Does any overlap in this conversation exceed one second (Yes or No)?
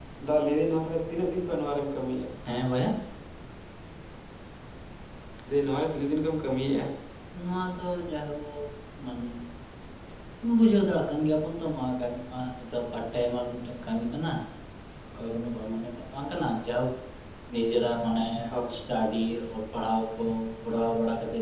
No